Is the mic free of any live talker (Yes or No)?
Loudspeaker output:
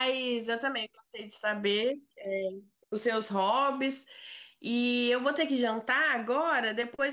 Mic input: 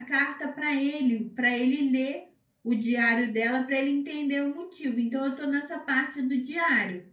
No